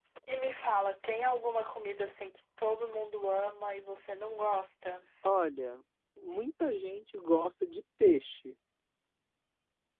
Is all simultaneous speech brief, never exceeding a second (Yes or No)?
Yes